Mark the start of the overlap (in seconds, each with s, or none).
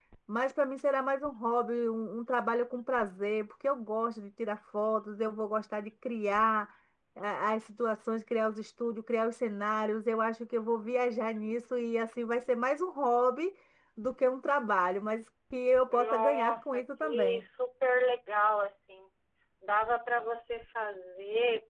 15.9 s